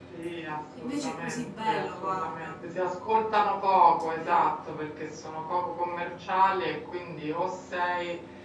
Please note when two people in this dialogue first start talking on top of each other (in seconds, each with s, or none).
0.8 s